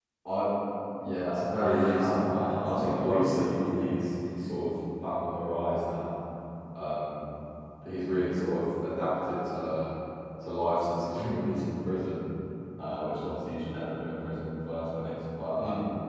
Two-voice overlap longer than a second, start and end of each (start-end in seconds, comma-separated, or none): 1.6-3.9